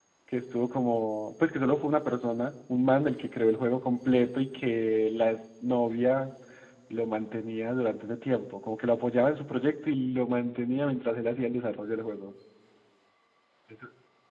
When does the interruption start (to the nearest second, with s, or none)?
none